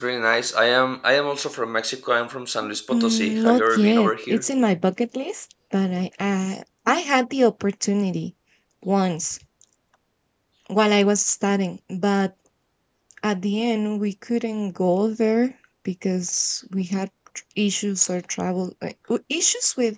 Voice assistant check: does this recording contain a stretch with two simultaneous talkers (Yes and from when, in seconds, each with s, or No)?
Yes, from 2.9 s